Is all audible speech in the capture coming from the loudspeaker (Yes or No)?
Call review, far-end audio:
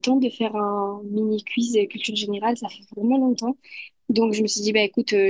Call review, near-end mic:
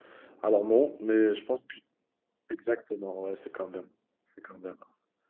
No